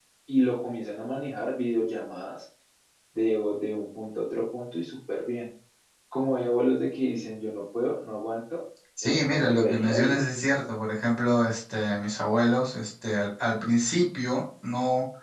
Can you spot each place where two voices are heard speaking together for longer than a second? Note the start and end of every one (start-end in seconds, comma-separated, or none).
9.0-10.2